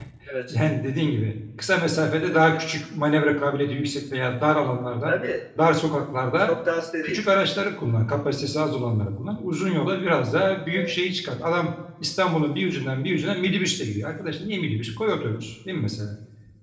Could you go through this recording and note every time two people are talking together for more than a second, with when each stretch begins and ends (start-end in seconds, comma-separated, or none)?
none